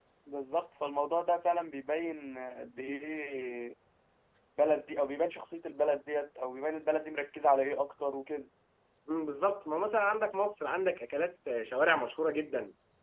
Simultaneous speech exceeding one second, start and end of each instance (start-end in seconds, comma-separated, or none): none